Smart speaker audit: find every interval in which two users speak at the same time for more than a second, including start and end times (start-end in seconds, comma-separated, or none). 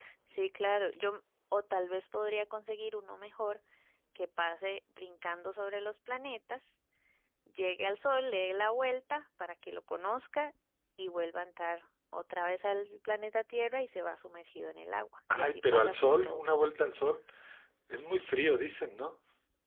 15.3-16.6